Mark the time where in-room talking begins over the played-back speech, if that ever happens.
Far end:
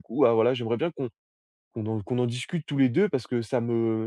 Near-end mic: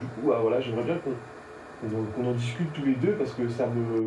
none

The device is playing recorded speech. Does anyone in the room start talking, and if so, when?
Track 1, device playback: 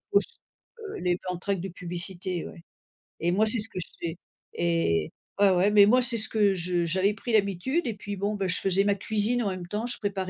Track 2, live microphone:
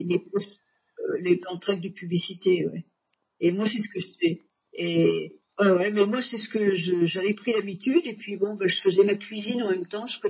none

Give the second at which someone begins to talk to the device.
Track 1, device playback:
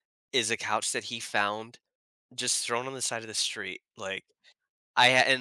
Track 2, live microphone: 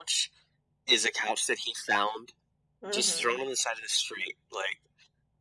2.8 s

